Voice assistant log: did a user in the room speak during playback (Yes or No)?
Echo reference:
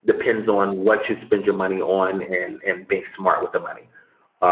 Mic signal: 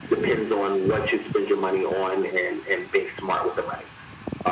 No